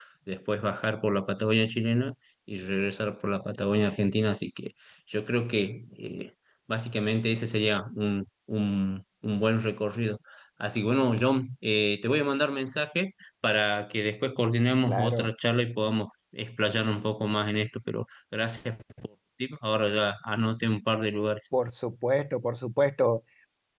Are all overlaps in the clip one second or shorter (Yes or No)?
Yes